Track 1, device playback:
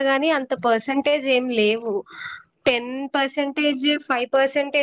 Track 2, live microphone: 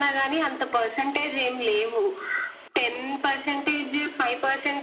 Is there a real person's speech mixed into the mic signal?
No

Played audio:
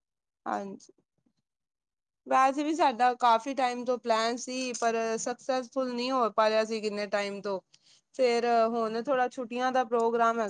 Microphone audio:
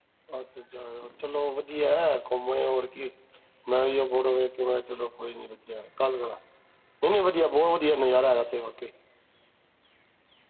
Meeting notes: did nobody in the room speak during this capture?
No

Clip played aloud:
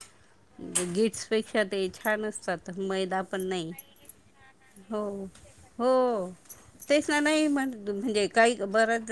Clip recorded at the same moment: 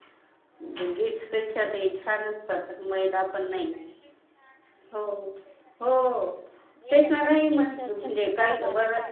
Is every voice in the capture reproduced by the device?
No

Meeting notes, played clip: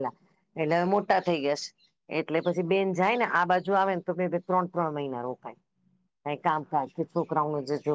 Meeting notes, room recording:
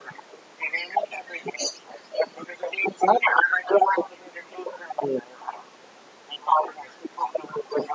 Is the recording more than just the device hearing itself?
No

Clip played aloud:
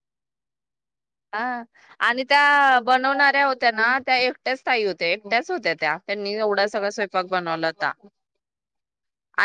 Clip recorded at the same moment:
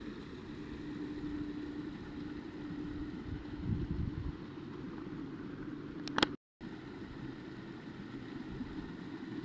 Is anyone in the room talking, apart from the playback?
No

